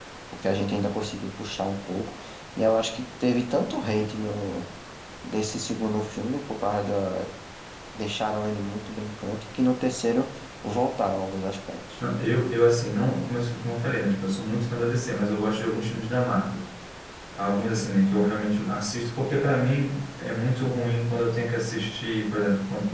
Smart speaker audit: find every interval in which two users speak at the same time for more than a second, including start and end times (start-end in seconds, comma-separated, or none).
none